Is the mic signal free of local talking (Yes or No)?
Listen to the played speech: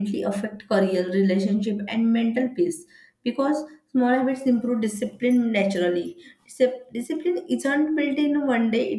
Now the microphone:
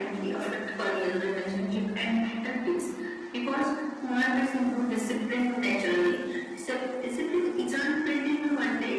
Yes